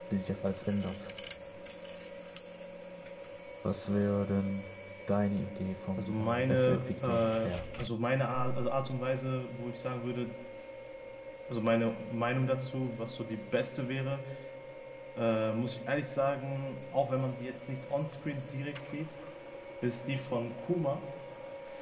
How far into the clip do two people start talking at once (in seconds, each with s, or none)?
6.0 s